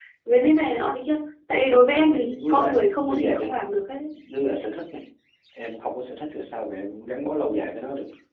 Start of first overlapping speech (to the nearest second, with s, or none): 2 s